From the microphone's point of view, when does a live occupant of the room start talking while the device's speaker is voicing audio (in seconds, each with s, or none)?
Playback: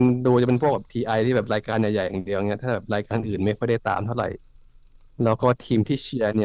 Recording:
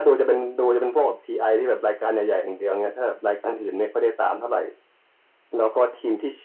none